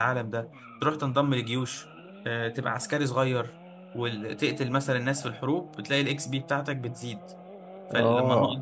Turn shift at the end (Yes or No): No